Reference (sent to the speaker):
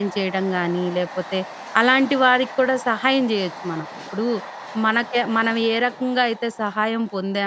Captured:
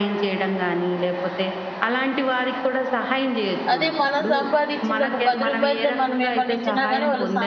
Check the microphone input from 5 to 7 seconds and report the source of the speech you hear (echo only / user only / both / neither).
both